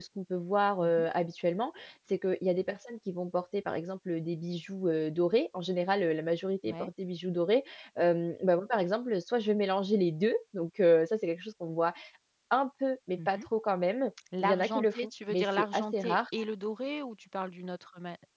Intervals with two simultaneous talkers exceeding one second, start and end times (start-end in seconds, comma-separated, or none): 14.4-16.2